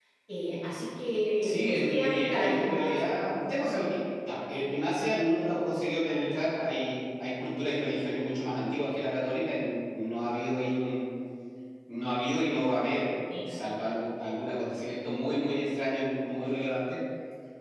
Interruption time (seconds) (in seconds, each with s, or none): 1.4 s